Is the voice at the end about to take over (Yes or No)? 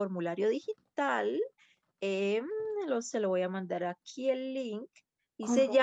No